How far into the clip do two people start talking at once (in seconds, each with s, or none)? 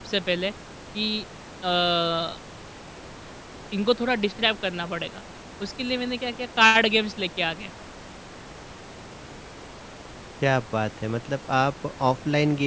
none